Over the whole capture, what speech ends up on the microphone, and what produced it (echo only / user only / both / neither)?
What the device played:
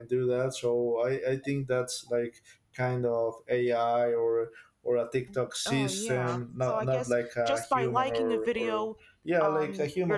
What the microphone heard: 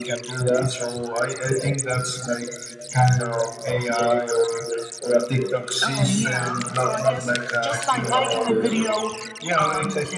echo only